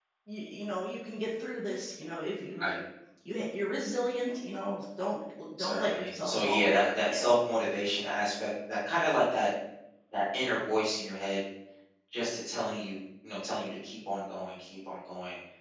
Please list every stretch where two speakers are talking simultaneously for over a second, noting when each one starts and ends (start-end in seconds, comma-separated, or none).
5.6-7.3